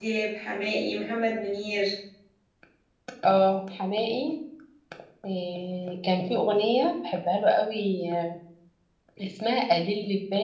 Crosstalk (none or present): none